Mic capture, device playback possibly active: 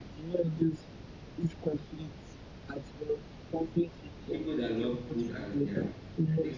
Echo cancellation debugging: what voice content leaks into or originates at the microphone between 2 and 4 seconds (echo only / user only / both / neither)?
echo only